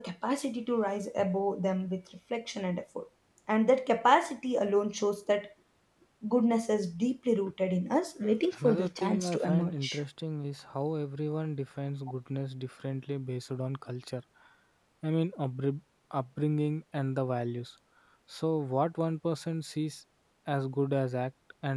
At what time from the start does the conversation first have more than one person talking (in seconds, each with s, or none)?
8.5 s